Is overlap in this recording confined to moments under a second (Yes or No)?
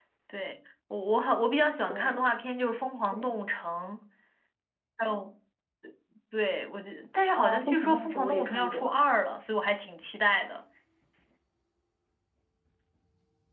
No